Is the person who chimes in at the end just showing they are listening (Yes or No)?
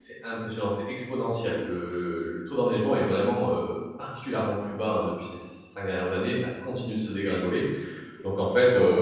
Yes